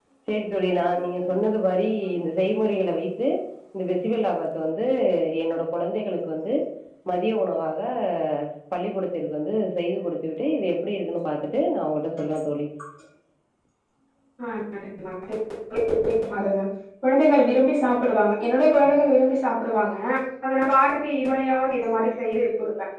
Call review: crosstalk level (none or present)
none